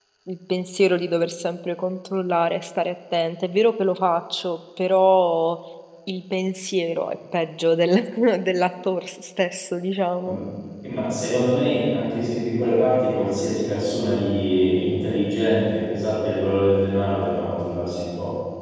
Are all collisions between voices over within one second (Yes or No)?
Yes